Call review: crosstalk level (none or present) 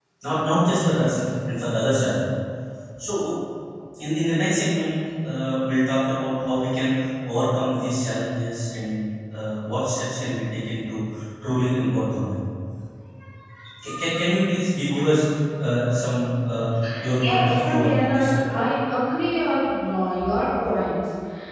present